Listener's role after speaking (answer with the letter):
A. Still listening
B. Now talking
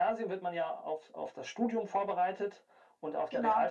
A